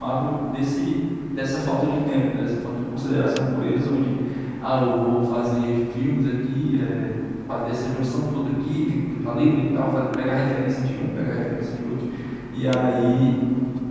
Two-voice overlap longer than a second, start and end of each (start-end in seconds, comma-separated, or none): none